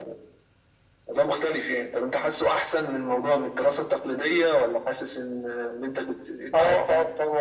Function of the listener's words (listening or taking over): taking over